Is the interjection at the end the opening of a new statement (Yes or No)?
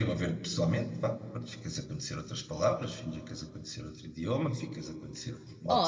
Yes